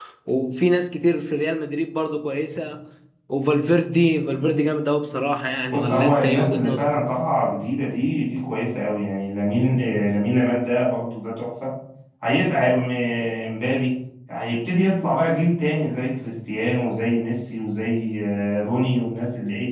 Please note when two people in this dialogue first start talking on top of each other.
5.7 s

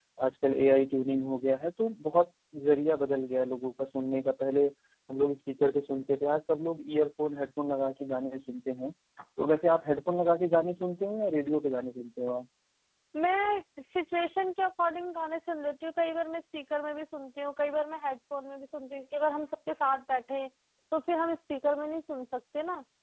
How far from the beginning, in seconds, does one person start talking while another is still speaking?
none

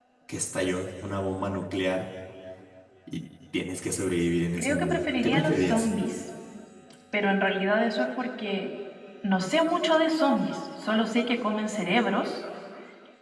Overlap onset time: 4.6 s

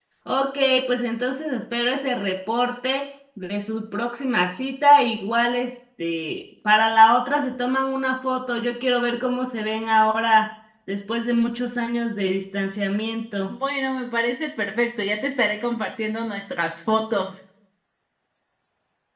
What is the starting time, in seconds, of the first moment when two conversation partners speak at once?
none

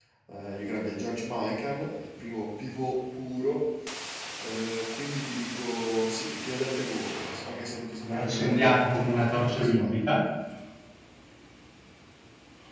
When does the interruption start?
8.0 s

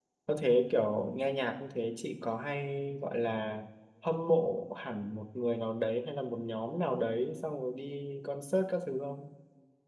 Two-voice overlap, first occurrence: none

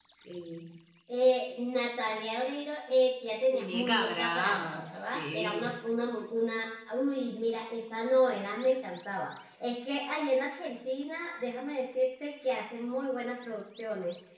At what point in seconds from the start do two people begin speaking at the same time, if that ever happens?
3.5 s

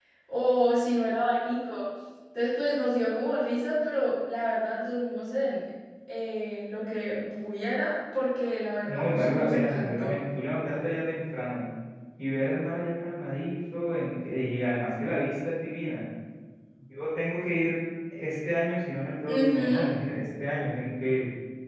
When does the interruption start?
8.9 s

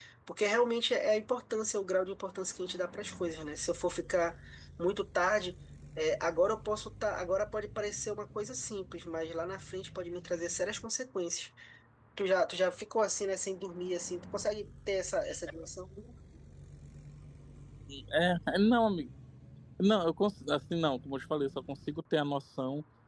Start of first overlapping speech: none

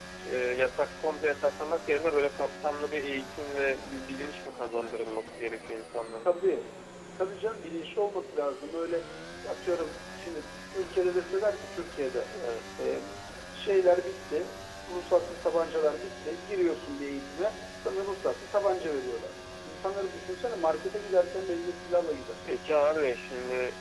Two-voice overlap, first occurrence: none

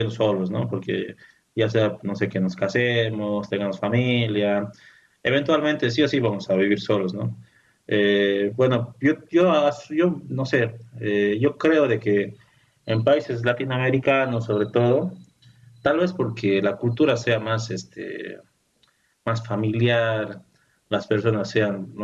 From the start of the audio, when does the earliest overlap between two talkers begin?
none

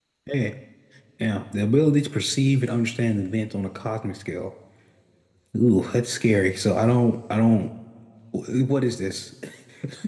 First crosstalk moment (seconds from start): none

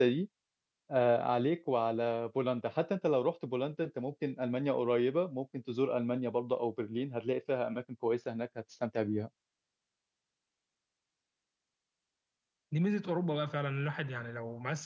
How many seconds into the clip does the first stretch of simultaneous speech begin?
none

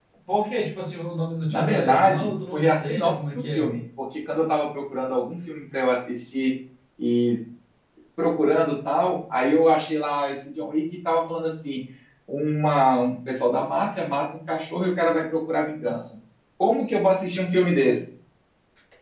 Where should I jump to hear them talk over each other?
1.5 s

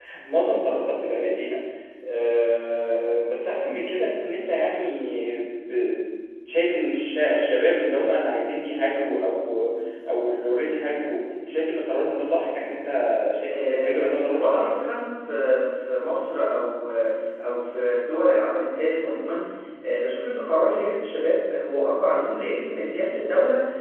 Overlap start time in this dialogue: 13.5 s

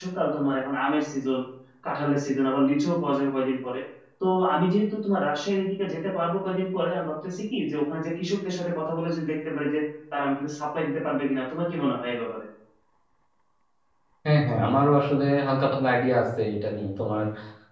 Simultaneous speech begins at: none

